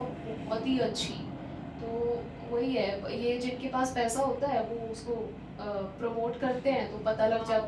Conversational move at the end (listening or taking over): taking over